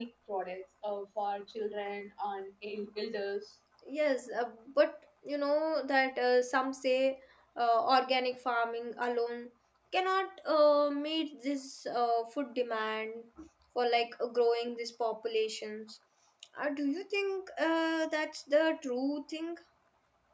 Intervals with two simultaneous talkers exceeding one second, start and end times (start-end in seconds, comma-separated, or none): none